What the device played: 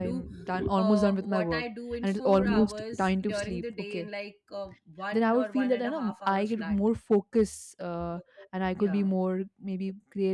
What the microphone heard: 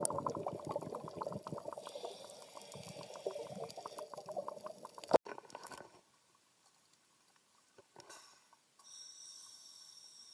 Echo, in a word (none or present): none